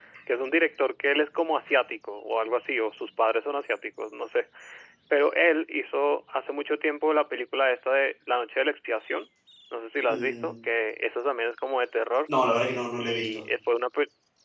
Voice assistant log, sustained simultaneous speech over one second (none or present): none